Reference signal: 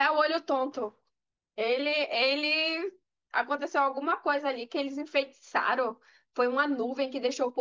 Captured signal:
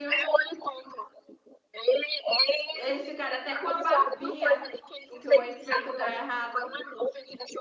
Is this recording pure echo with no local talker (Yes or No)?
No